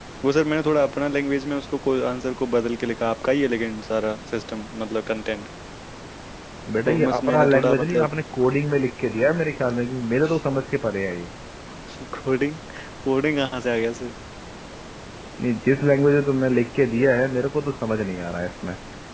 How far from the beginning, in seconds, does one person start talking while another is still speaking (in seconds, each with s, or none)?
6.9 s